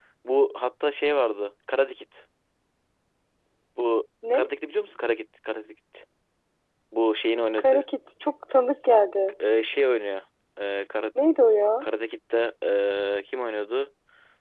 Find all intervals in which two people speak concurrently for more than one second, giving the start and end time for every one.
none

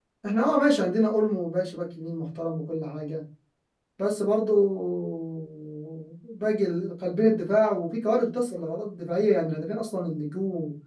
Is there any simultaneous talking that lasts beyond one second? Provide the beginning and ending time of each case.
none

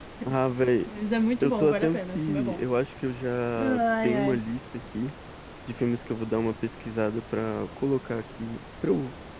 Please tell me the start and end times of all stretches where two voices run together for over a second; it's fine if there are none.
1.4-2.6

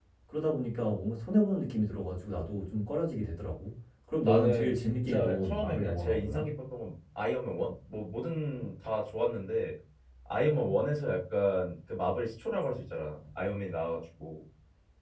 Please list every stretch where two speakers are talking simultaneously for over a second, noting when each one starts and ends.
4.2-6.5

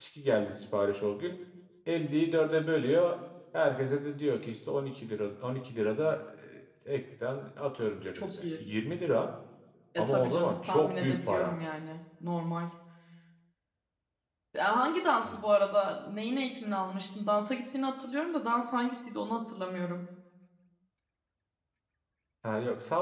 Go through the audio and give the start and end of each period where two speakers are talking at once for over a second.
10.0-11.5

